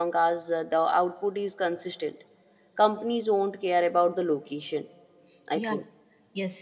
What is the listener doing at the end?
taking over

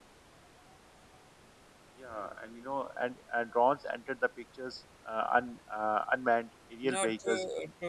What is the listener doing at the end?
taking over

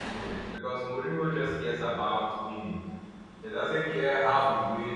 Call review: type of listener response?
listening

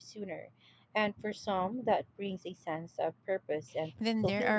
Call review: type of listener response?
taking over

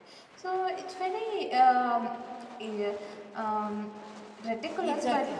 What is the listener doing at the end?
taking over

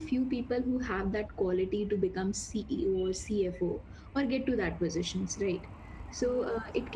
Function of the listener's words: listening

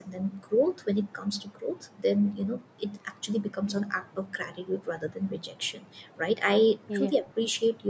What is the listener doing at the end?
listening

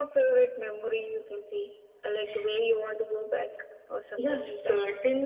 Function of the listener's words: taking over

